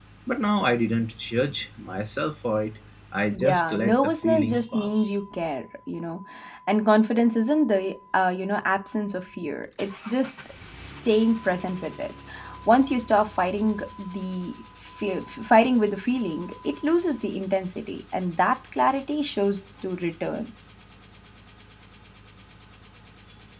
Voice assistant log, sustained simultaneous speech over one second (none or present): present